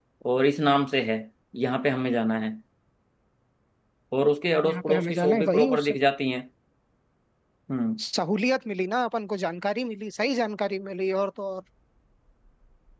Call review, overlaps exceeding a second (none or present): present